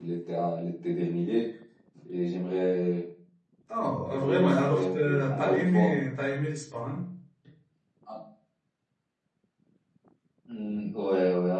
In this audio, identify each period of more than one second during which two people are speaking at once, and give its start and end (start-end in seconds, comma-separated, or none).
4.1-5.9